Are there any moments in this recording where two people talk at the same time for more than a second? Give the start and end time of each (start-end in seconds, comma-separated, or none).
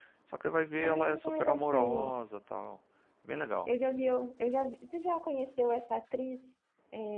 0.8-2.1